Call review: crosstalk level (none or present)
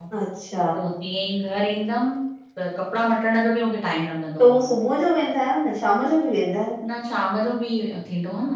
none